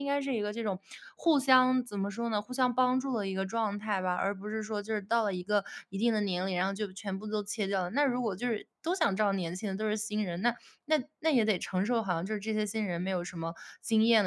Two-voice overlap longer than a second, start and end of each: none

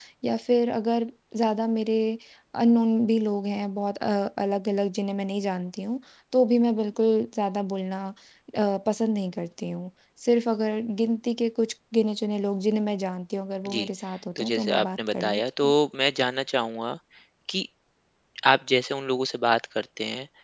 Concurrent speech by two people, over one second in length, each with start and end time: 14.4-15.7

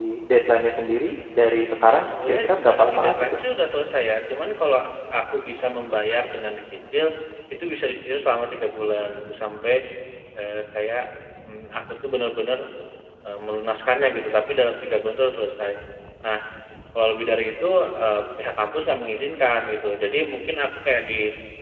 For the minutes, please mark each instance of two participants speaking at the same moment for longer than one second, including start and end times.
1.9-3.4

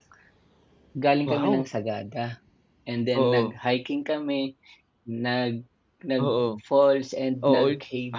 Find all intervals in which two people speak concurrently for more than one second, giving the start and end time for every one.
none

